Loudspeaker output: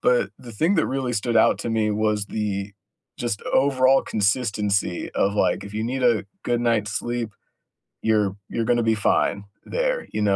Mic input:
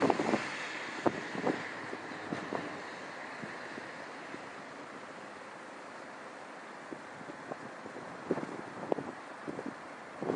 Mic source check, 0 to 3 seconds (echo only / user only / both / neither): neither